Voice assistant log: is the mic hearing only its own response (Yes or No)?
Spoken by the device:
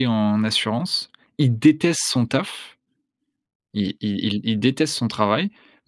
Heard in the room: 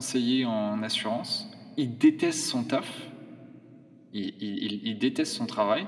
Yes